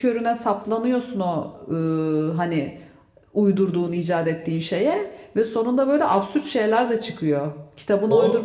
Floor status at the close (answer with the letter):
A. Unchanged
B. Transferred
B